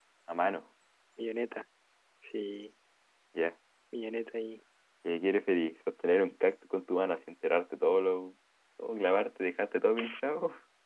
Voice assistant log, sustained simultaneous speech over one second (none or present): none